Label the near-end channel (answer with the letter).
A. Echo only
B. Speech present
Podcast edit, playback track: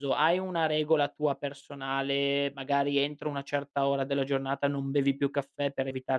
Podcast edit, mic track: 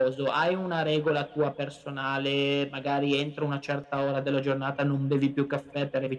A